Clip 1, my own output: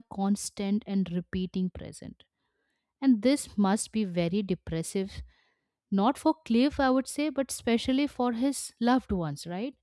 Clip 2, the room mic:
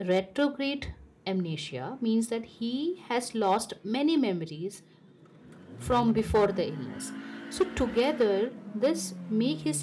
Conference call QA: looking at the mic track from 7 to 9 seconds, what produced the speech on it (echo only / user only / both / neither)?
user only